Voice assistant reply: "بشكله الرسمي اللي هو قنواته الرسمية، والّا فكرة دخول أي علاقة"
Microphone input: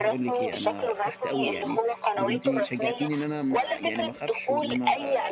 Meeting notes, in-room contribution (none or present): present